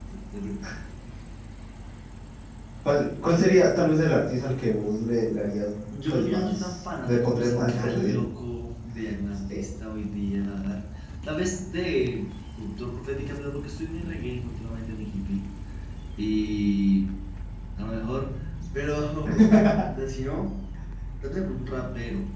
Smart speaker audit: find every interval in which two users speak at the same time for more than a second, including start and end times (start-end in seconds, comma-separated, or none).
6.1-8.2